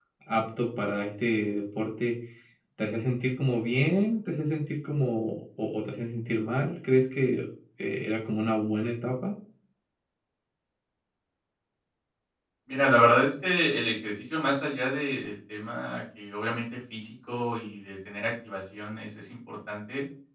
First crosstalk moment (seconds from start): none

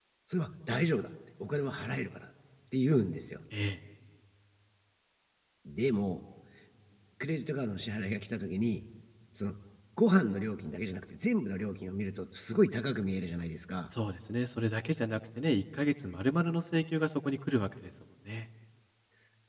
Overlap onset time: none

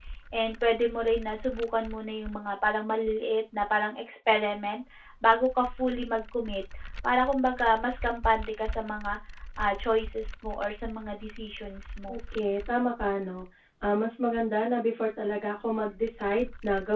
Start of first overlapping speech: none

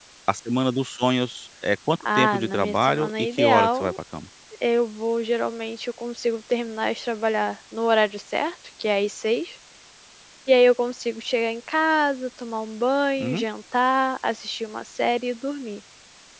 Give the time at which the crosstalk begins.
2.0 s

